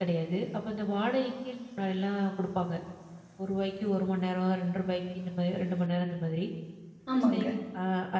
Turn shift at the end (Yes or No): No